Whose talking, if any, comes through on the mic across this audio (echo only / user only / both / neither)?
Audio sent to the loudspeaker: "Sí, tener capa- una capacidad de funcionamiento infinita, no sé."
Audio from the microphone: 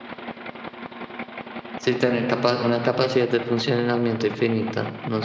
echo only